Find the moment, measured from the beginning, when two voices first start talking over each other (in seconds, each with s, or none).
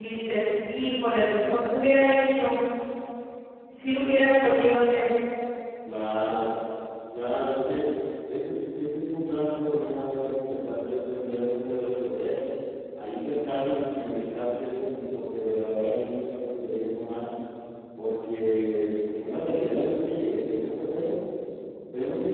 none